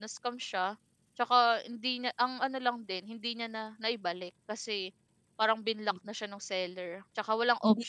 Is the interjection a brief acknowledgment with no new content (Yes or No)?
Yes